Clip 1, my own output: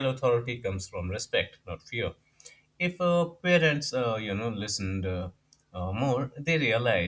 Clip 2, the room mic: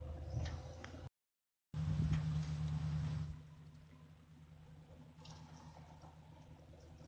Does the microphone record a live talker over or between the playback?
No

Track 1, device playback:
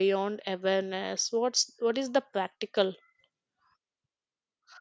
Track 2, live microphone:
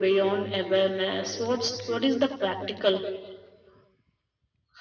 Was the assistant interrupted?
Yes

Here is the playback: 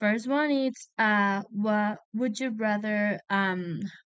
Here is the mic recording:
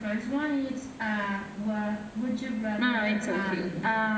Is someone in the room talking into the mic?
Yes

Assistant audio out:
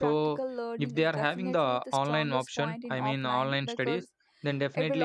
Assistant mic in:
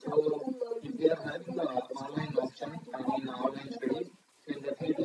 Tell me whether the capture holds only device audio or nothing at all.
Yes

